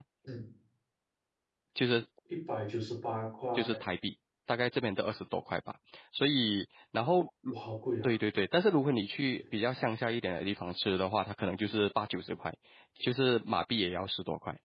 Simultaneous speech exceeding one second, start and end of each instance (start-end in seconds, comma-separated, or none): none